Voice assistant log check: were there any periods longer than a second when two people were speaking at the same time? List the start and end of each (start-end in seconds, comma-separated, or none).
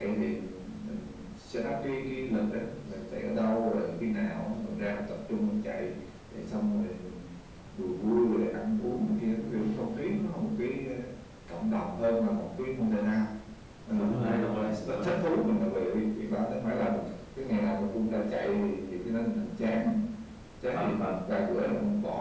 13.9-15.1